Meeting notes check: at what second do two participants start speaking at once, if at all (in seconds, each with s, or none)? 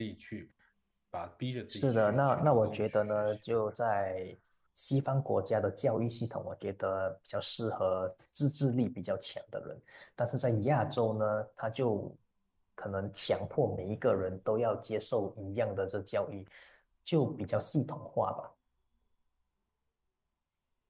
1.7 s